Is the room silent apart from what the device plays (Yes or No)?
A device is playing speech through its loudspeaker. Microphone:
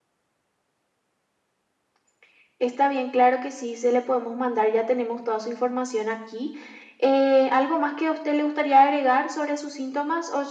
Yes